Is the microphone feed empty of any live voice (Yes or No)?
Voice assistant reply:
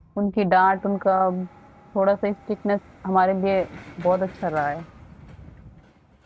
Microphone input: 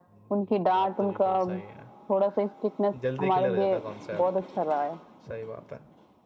No